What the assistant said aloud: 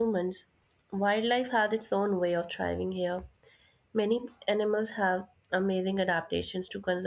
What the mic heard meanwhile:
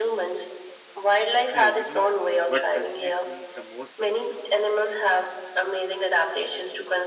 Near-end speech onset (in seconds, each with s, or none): 1.5 s